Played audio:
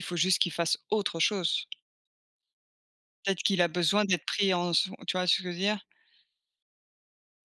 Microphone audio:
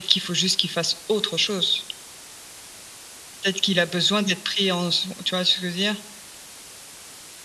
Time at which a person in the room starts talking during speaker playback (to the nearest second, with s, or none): none